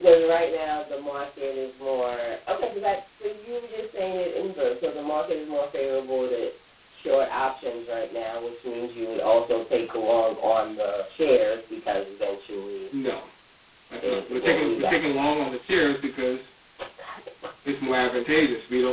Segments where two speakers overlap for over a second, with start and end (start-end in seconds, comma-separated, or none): 14.0-15.2